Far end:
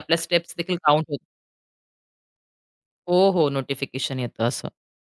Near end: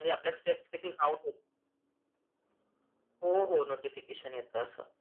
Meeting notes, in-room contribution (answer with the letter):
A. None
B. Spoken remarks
A